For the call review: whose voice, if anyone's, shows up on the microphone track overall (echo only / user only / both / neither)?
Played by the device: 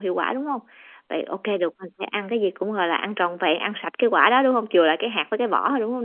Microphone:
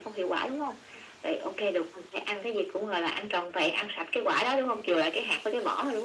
echo only